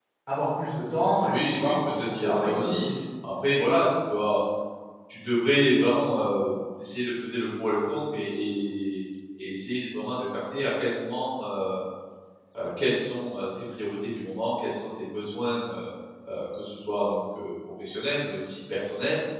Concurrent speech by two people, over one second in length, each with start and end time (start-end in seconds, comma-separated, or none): 1.2-2.9